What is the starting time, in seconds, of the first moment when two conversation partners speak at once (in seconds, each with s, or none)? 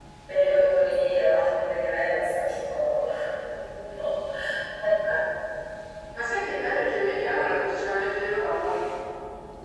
none